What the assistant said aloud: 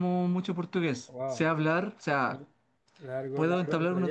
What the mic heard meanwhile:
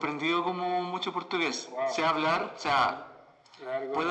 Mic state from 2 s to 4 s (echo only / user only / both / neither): echo only